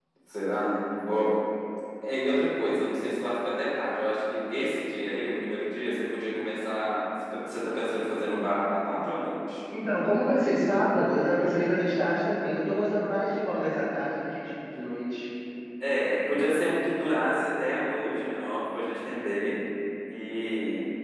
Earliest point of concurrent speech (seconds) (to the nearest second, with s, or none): none